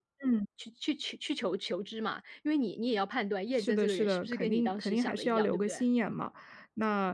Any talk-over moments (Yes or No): Yes